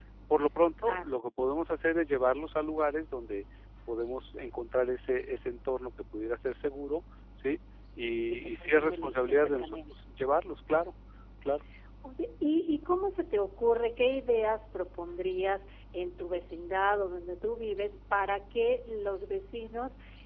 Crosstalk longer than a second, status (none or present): present